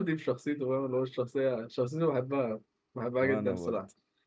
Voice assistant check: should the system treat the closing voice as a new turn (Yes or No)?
No